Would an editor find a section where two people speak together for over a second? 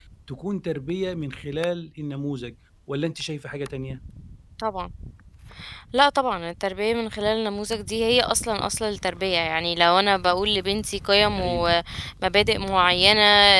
No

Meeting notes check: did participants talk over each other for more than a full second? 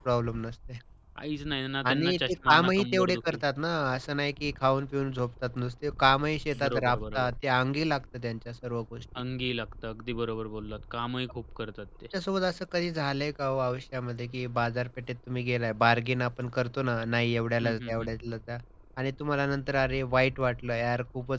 Yes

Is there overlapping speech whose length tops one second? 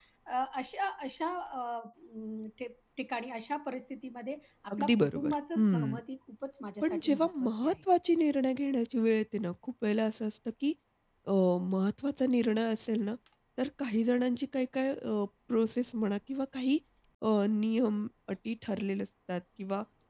Yes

